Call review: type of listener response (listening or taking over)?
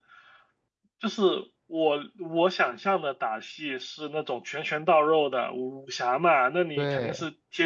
listening